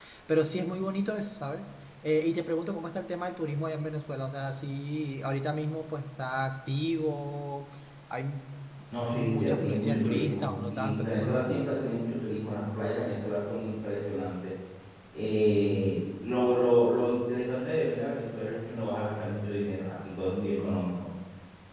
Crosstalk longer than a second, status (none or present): present